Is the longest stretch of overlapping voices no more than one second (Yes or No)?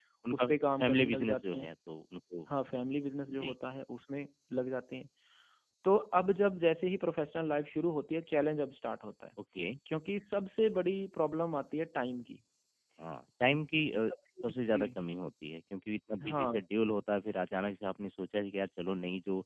No